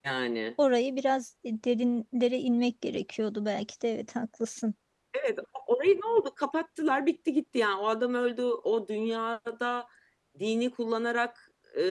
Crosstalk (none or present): none